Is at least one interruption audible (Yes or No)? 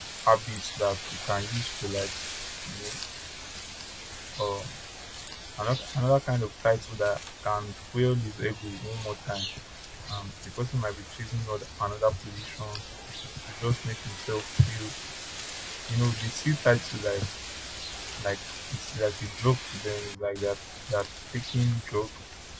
No